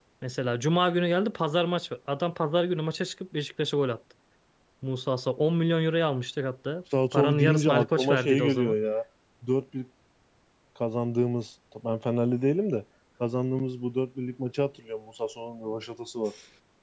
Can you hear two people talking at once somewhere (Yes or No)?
Yes